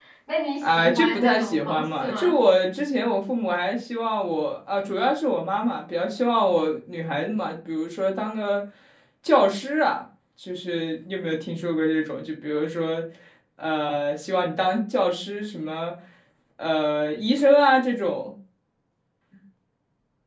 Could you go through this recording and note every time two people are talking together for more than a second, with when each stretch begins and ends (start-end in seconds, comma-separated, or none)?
0.6-2.4